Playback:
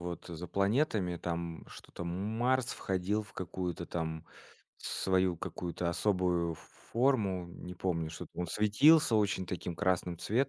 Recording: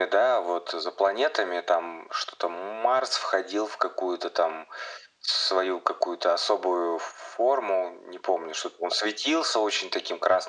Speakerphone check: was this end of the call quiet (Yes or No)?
Yes